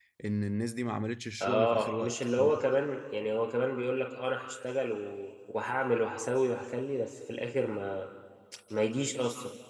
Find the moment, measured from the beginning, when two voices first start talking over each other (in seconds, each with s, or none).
1.4 s